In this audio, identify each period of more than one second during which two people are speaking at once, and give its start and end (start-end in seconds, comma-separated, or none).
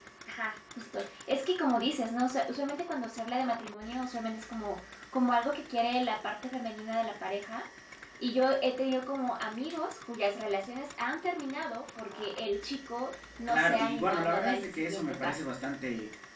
13.5-15.4